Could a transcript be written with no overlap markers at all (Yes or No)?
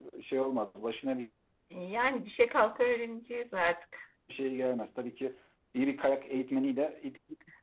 Yes